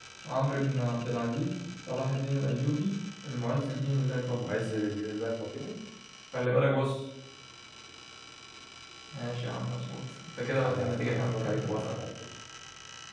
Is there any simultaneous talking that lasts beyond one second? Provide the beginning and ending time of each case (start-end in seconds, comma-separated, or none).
10.6-11.8